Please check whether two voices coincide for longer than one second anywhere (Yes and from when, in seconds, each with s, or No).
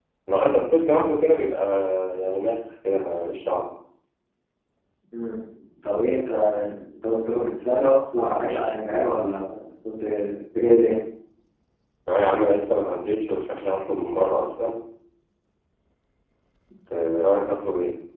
No